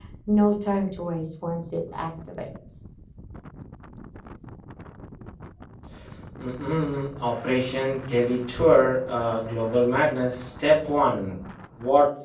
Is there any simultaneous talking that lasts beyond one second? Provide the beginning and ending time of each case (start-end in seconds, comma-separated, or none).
none